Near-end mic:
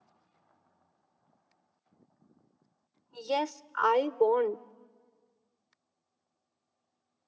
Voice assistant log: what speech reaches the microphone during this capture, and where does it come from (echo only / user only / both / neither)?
user only